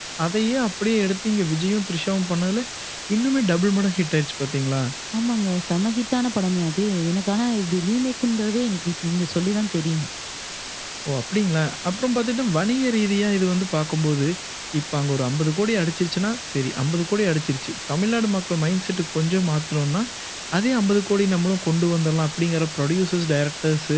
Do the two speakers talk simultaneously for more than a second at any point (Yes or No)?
No